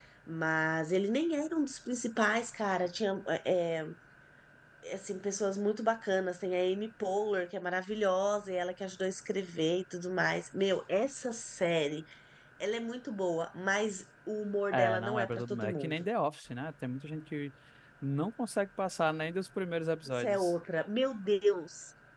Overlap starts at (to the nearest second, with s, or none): 15 s